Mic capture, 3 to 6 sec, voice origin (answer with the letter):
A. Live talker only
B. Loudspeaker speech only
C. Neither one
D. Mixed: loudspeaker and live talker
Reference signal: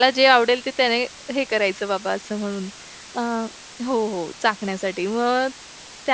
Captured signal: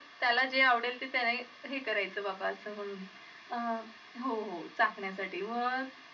B